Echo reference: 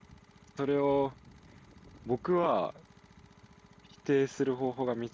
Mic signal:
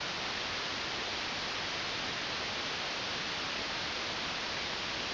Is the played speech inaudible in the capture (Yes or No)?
Yes